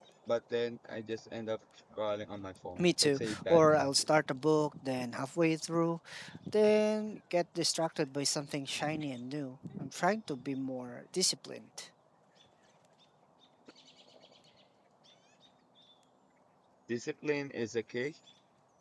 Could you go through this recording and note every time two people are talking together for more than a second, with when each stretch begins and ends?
2.8-4.1

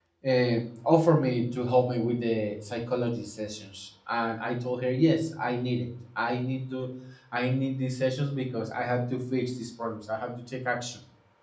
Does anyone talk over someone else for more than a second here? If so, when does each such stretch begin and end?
none

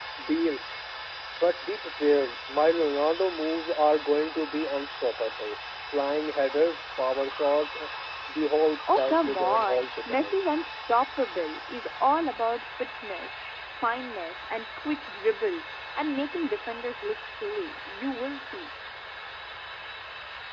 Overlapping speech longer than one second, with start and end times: 9.0-10.4

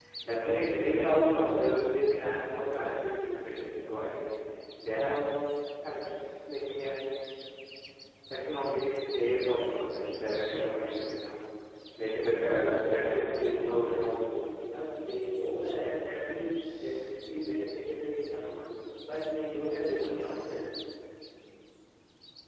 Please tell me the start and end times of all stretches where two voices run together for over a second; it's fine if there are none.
12.5-14.5

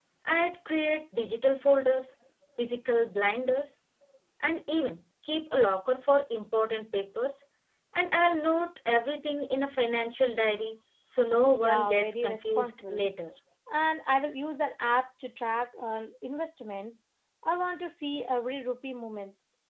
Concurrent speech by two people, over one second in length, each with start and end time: 11.6-13.1

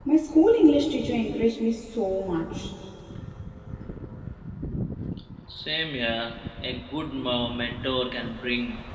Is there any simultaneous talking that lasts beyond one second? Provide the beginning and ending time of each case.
none

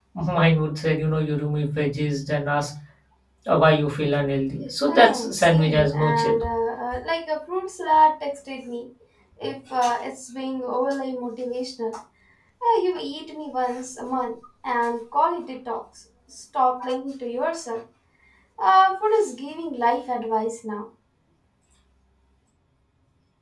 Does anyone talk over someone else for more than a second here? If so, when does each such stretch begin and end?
4.9-6.3

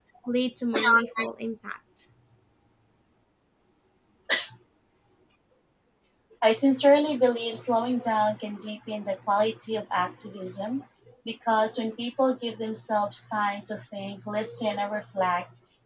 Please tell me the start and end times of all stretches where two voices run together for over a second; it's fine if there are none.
none

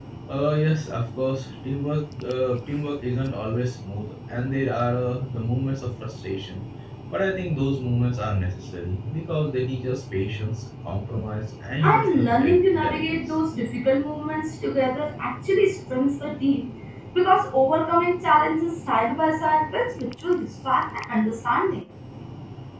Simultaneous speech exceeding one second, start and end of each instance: 11.8-13.3

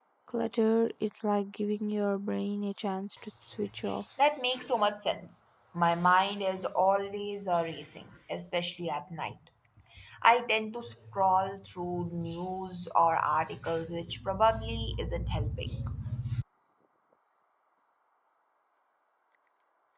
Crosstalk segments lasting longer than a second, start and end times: none

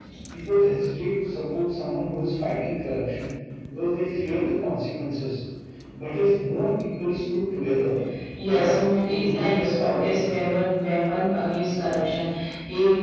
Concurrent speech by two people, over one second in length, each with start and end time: 8.5-10.5

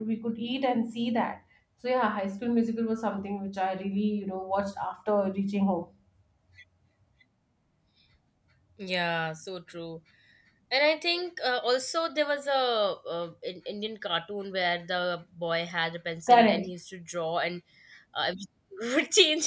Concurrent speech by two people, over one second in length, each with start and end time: none

